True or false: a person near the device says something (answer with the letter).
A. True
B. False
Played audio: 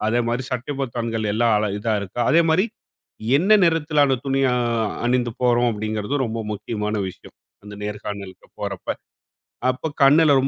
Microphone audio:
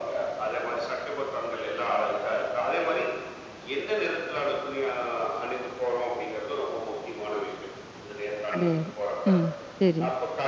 A